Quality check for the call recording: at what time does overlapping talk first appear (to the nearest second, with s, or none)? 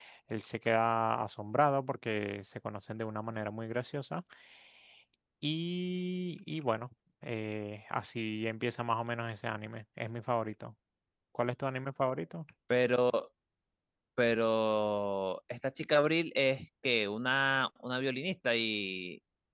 none